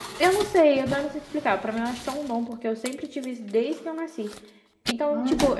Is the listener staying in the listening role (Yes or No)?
Yes